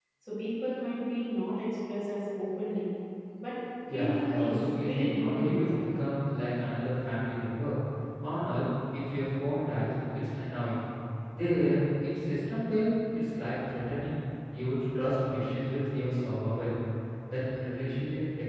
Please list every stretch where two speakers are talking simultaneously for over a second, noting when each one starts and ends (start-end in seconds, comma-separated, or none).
3.9-5.8